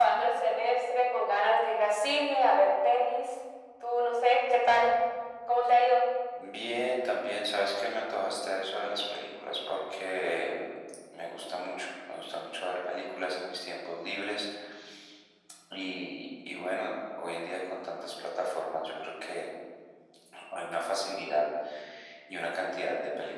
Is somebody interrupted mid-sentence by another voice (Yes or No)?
No